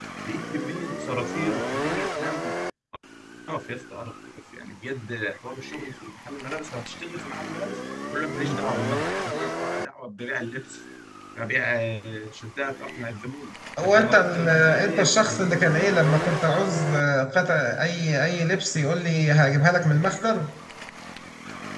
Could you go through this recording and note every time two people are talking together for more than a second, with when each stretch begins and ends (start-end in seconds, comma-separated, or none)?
13.8-15.4